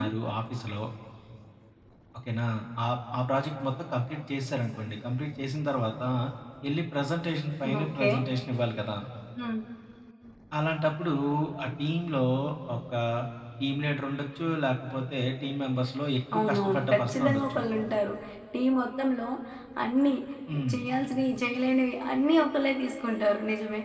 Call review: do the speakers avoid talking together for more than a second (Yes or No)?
No